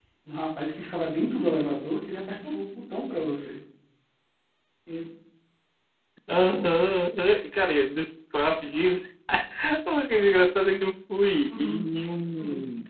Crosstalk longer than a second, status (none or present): none